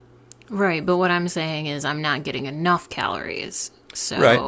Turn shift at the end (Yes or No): Yes